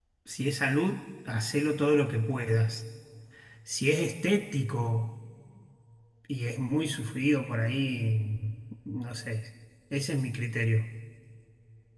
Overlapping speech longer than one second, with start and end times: none

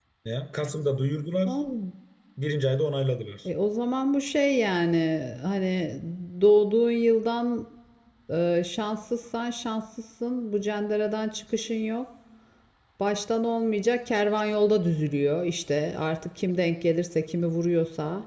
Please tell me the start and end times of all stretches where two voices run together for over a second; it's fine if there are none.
none

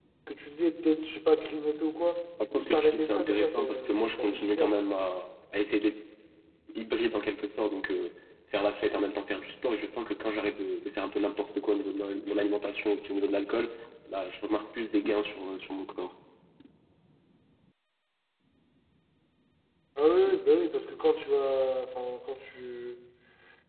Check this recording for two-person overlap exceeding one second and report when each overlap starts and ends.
2.5-4.8

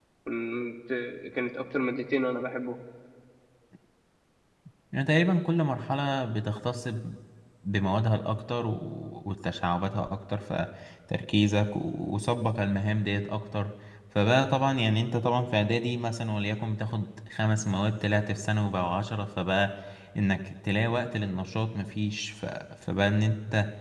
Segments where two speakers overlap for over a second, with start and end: none

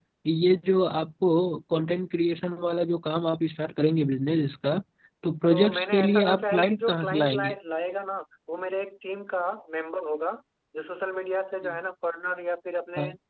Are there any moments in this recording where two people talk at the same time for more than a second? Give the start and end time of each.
5.5-7.5

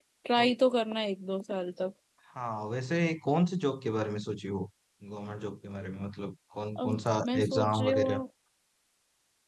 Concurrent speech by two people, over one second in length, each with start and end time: 6.8-8.2

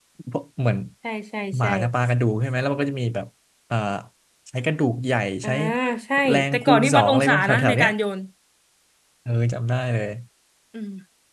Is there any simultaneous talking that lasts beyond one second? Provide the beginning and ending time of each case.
6.3-7.9

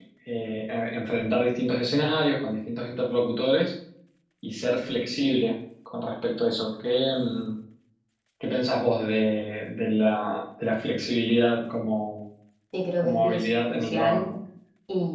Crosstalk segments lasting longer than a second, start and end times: 13.0-14.3

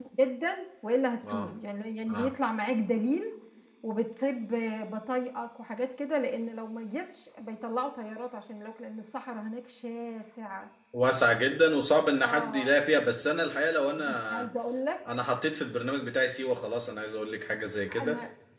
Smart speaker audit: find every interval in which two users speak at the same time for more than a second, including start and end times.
none

